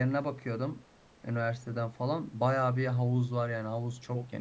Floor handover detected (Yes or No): Yes